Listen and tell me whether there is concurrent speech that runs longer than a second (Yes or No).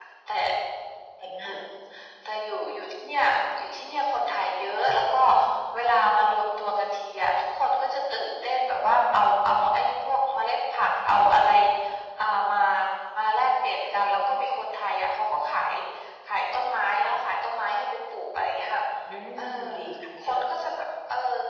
No